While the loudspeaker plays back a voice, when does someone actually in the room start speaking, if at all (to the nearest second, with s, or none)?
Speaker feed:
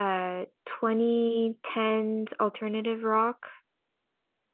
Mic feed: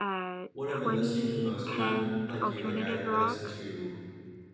1 s